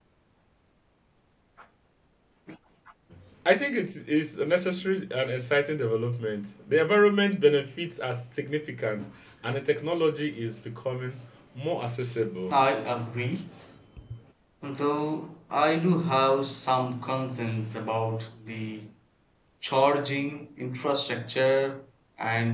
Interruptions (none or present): none